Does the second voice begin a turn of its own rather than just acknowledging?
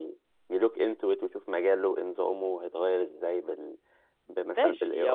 Yes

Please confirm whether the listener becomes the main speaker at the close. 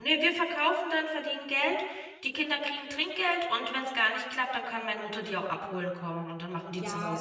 Yes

